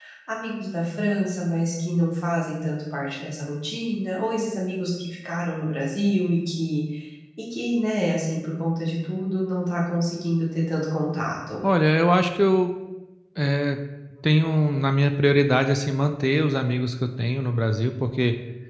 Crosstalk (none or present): none